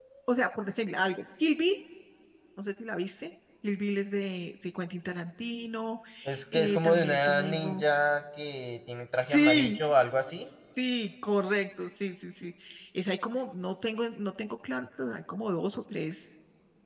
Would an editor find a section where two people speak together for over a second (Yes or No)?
Yes